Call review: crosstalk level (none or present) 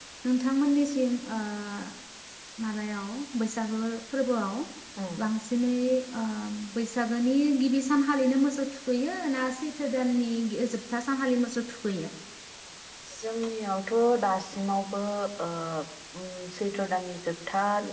none